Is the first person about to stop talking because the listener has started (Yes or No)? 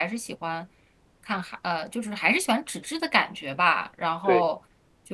No